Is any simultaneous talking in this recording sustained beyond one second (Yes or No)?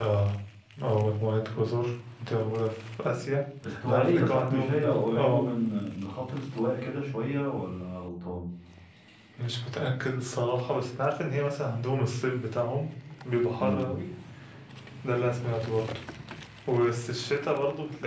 Yes